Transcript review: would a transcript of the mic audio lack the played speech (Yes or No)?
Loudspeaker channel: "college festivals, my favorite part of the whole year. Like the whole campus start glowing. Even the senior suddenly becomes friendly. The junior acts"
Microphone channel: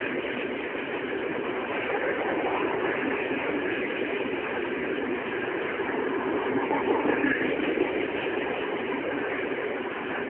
Yes